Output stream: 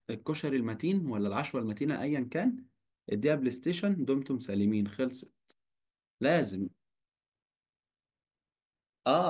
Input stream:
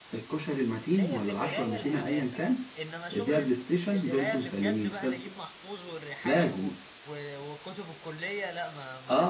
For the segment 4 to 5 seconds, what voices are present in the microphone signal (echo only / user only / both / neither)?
both